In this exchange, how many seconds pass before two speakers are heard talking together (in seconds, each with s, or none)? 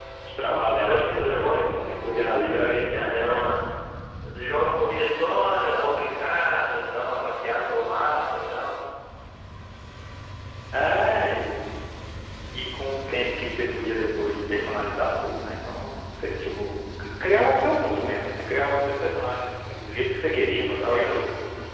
0.7 s